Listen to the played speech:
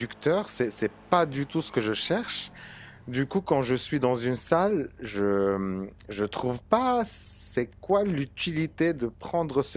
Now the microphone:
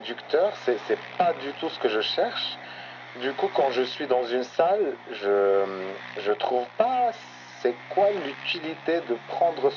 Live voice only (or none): none